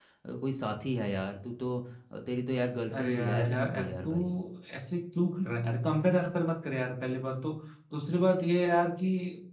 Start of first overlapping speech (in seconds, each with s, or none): 2.9 s